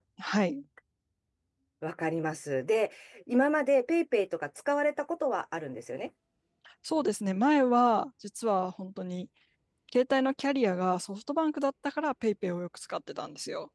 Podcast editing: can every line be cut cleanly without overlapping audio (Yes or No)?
Yes